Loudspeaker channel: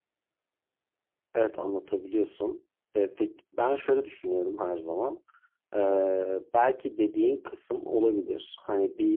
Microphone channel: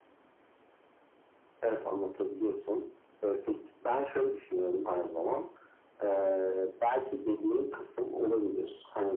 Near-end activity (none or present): none